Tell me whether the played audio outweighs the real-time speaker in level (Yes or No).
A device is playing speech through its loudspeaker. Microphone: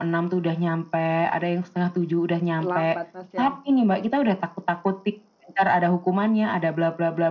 Yes